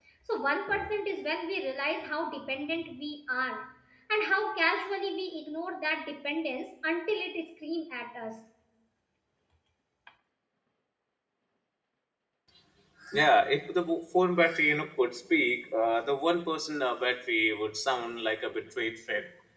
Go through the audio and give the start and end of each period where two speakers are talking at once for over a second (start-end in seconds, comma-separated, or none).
none